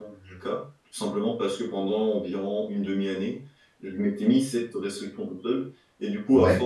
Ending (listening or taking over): listening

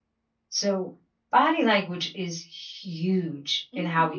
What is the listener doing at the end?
listening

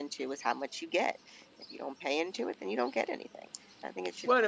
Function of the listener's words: taking over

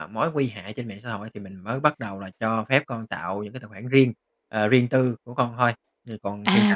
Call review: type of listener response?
taking over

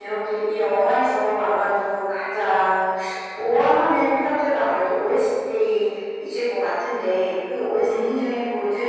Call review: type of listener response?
listening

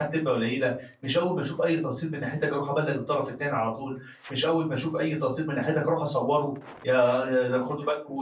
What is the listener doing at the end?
listening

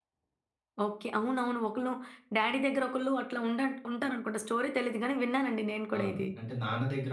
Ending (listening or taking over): taking over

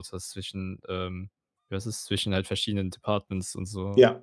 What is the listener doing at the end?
taking over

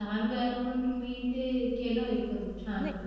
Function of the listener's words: taking over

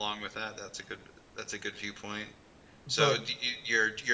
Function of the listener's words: listening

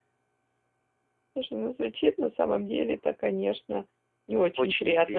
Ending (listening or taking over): listening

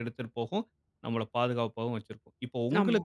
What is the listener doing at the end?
listening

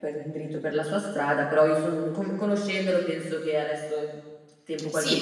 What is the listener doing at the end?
taking over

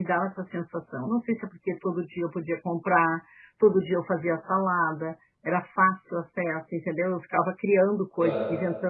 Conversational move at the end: listening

